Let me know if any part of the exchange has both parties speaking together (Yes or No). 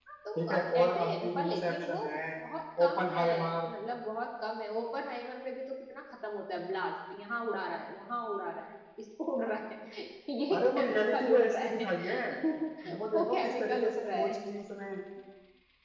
Yes